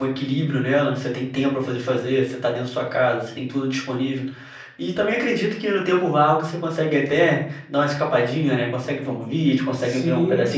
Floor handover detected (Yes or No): Yes